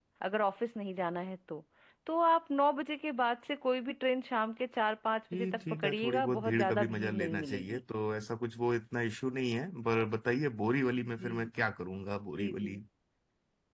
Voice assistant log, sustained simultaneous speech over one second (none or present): present